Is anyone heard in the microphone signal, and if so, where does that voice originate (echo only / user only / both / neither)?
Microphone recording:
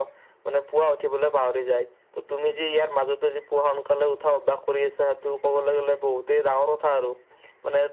echo only